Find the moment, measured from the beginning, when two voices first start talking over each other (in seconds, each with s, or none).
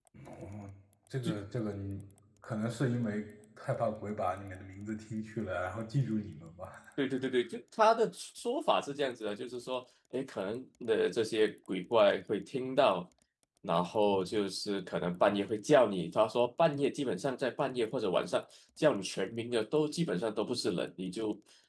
none